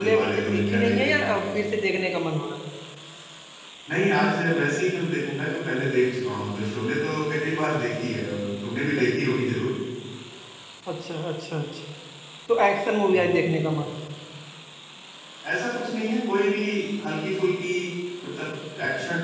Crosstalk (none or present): present